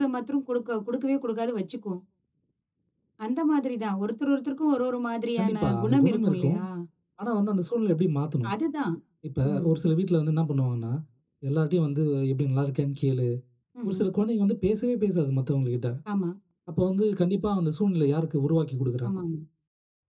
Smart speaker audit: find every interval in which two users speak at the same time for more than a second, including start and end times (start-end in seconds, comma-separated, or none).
5.4-6.6